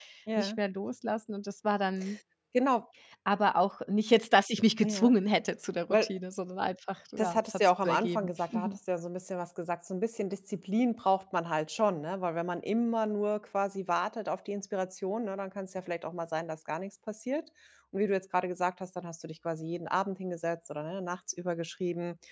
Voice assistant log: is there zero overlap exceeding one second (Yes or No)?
No